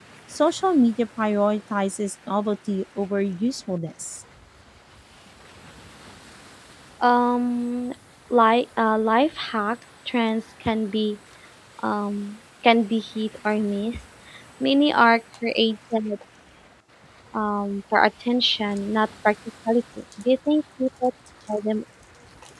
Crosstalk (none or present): none